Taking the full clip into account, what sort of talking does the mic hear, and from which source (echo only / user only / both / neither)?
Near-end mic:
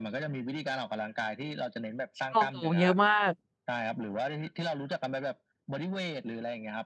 both